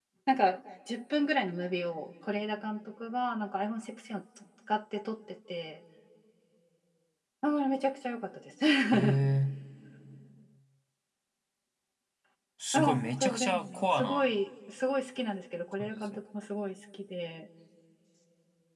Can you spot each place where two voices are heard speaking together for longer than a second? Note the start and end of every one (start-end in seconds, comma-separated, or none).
12.7-14.2